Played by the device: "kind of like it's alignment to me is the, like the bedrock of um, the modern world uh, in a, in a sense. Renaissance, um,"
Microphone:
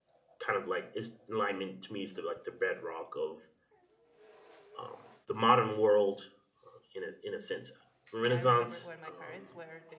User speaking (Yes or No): Yes